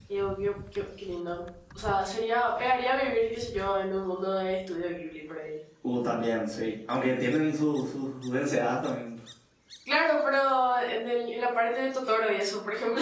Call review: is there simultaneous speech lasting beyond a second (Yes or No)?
No